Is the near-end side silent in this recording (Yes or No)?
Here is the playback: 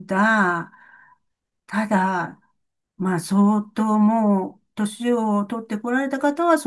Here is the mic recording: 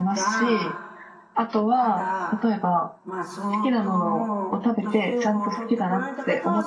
No